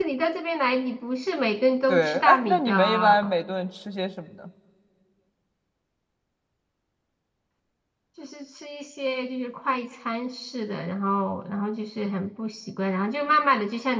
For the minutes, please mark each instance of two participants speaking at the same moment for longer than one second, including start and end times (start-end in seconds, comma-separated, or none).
1.9-3.3